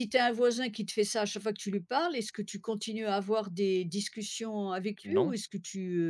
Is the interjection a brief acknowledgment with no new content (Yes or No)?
Yes